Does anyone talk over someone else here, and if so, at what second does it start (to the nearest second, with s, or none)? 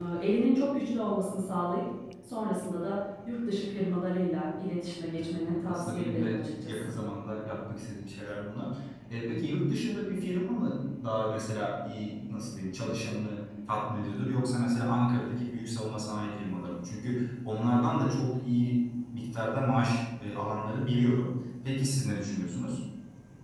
5 s